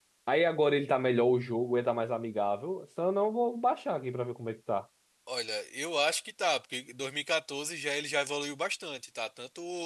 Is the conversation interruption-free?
Yes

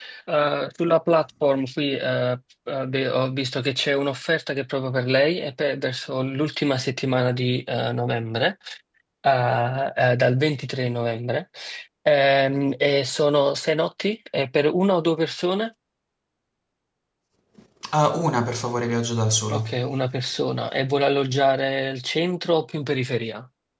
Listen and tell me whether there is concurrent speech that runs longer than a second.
No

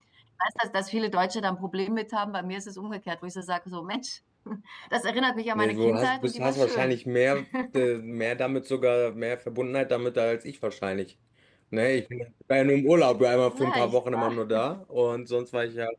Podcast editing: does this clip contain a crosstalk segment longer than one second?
Yes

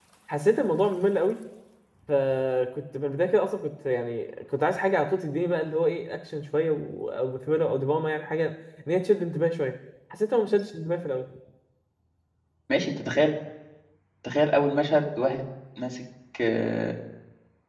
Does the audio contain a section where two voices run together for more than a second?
No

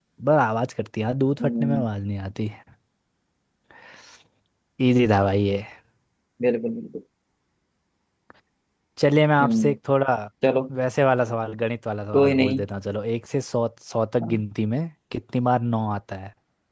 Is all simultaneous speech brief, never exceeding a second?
Yes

